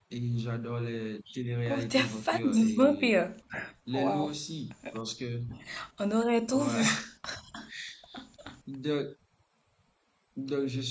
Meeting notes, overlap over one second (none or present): present